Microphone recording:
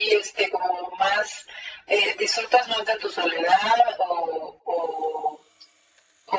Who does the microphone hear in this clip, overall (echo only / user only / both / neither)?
echo only